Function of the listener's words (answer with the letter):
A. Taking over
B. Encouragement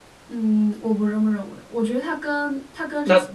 B